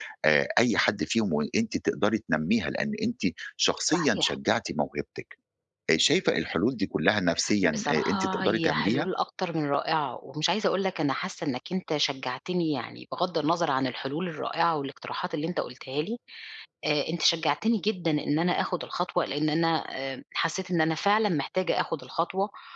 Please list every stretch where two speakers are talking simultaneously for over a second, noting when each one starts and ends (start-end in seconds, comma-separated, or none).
7.6-9.1